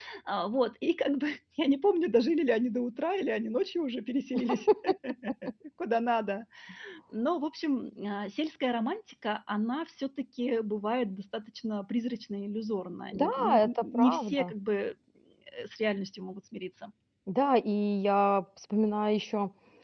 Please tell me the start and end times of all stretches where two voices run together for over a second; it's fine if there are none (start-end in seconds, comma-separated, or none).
13.1-14.5